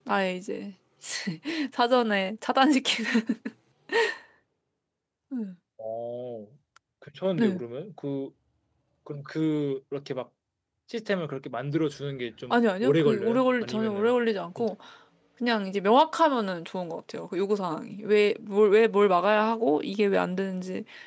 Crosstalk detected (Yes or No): Yes